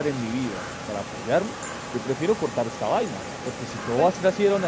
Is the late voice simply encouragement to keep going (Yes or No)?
Yes